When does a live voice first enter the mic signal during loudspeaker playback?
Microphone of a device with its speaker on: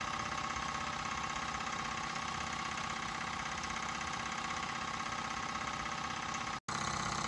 none

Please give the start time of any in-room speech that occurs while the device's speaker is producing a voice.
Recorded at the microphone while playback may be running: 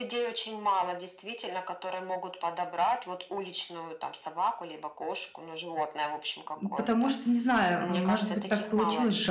6.6 s

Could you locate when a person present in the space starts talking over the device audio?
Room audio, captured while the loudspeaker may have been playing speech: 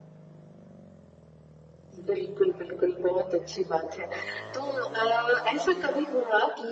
none

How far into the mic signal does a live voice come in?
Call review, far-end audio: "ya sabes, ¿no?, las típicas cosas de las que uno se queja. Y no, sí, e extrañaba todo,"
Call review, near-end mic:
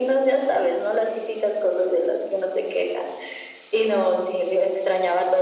none

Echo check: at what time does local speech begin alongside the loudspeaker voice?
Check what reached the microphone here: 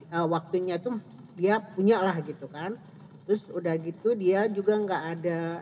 none

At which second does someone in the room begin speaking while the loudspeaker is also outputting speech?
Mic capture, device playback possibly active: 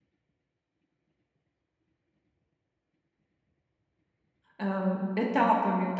4.6 s

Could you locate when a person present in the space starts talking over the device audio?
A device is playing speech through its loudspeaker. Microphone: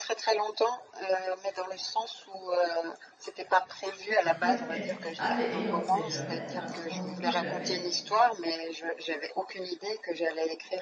4.2 s

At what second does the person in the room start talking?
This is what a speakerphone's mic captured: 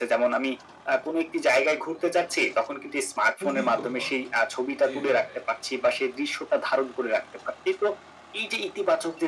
3.4 s

